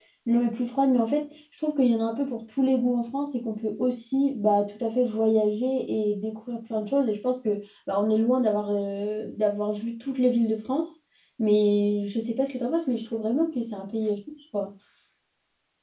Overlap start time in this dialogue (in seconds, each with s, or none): none